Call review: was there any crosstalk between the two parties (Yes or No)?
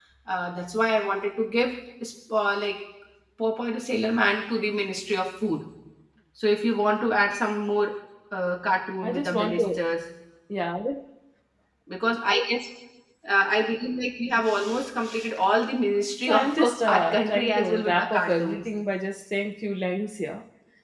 Yes